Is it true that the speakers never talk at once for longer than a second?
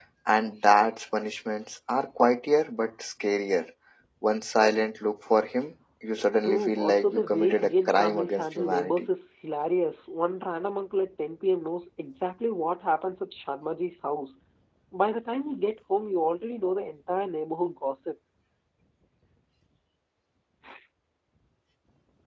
No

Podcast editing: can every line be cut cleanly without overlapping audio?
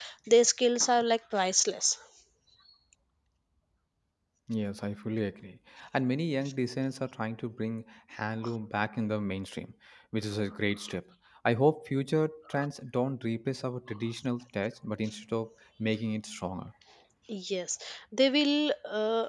Yes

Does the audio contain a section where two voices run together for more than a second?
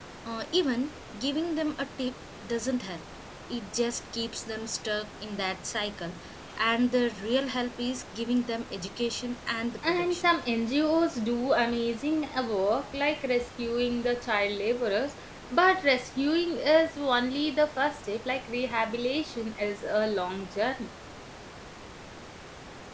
No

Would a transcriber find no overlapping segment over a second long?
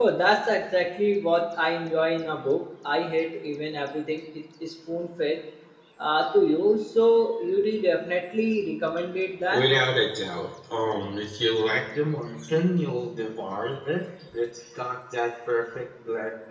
Yes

